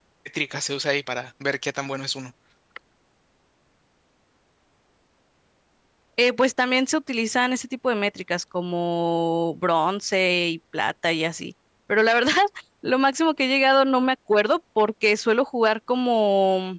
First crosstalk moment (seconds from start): none

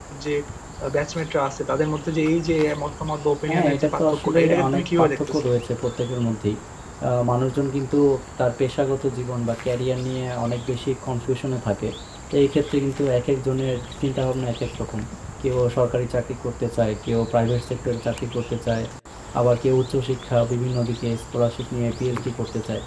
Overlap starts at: 3.5 s

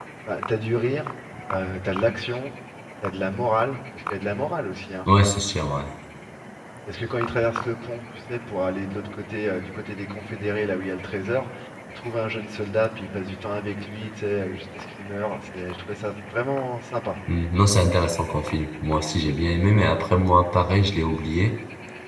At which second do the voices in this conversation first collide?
none

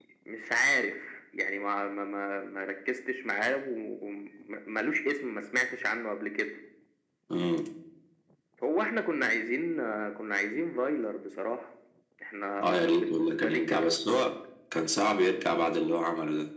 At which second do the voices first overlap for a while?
12.6 s

